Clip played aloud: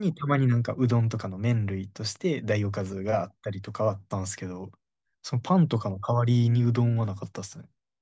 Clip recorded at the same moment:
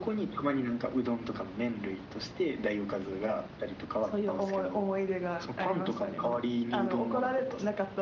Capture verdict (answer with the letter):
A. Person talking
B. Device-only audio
A